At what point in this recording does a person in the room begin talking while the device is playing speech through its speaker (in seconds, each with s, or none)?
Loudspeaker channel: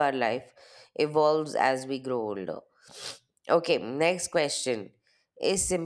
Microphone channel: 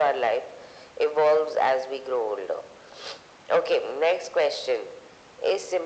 none